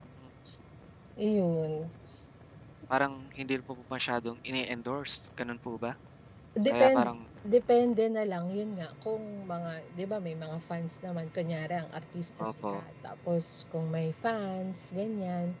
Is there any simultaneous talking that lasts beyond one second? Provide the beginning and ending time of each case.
none

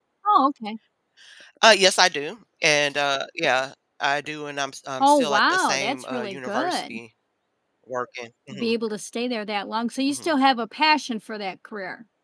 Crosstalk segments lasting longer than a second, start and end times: 5.0-7.0

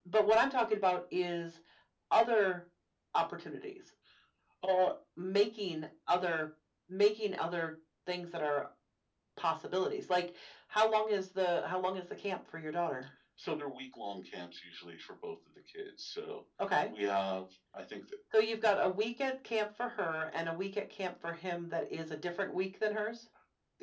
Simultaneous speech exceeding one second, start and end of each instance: none

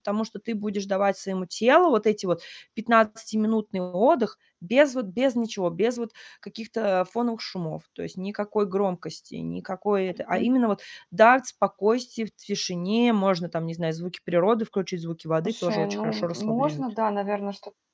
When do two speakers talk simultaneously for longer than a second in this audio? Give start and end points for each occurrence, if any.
15.4-16.8

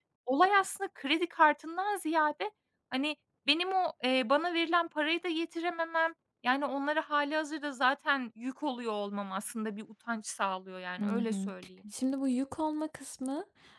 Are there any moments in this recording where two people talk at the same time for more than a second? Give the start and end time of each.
none

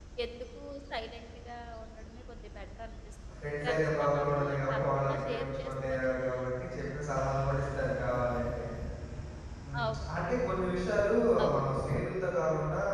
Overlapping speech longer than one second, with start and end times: 3.6-6.1

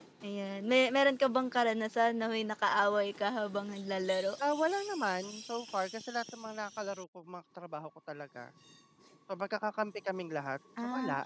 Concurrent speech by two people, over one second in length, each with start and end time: none

